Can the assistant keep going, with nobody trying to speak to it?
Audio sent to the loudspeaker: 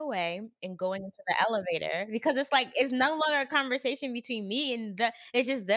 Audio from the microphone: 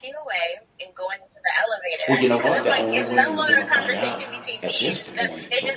No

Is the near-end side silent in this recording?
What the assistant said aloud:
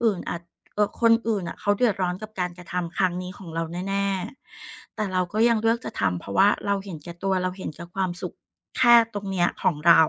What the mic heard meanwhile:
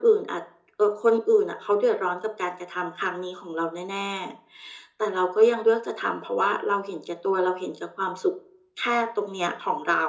Yes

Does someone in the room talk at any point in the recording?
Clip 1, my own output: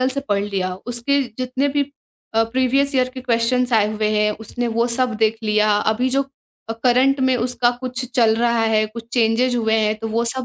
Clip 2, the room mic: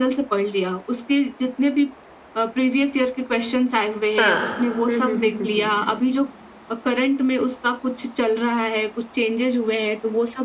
Yes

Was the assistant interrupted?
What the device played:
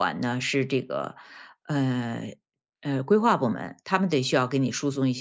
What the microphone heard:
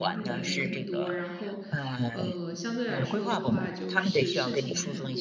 Yes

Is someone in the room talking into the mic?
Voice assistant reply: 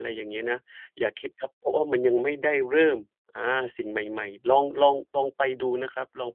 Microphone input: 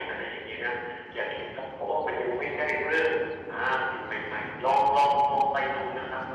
No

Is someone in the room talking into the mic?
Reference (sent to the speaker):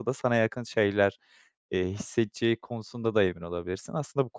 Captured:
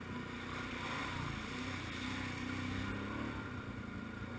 No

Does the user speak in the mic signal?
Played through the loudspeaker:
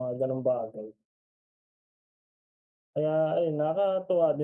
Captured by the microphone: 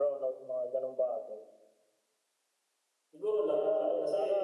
Yes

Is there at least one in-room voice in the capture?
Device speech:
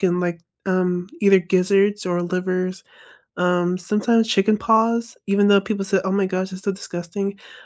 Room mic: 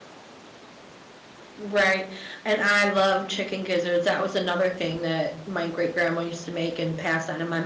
Yes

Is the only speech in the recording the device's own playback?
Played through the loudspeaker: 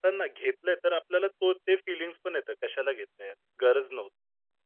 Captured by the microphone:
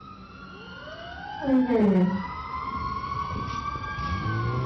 No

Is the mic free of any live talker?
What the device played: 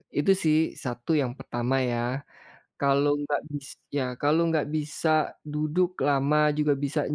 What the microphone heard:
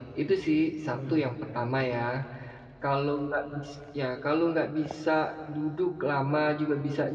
No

